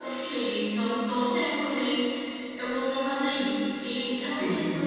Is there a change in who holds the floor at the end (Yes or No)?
No